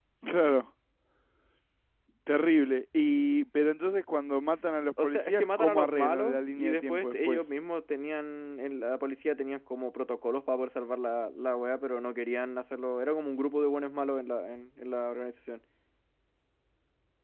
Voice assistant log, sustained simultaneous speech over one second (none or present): present